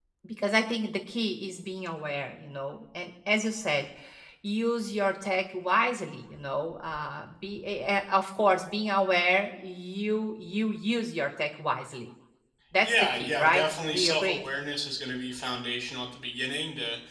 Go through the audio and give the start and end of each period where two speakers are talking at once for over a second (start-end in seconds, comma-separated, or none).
12.8-14.4